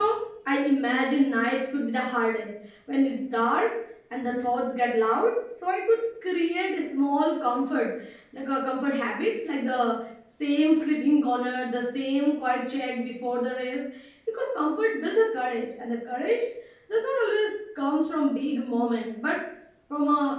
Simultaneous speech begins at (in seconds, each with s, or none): none